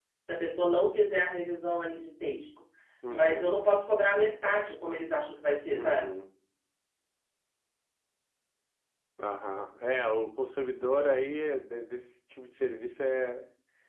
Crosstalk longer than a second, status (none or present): none